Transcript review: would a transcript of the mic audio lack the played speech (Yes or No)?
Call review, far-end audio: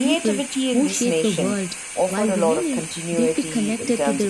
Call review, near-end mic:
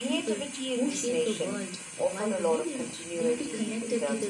No